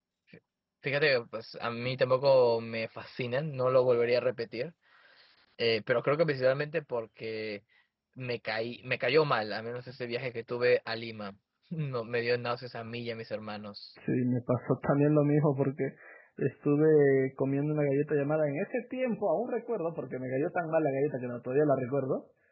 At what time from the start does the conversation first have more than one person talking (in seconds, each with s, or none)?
none